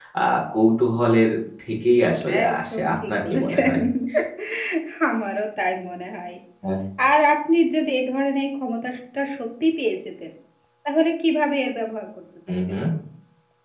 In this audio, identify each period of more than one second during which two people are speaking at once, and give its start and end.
2.5-3.7

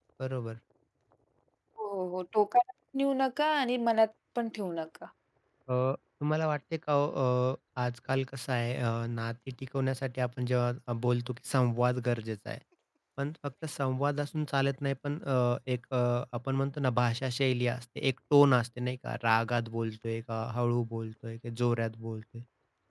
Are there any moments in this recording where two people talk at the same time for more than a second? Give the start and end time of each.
none

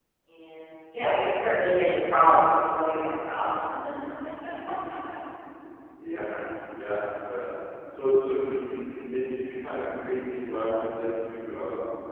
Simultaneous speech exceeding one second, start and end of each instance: none

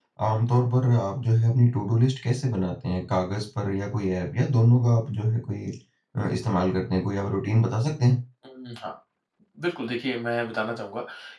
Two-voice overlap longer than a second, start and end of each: none

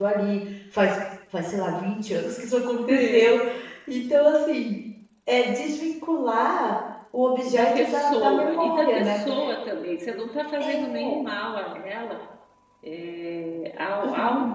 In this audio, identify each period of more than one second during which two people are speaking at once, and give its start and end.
7.5-9.2

